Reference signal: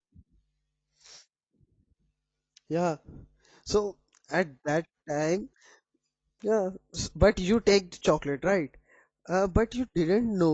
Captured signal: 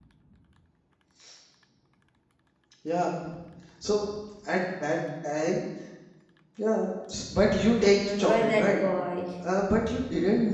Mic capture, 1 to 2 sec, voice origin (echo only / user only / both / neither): neither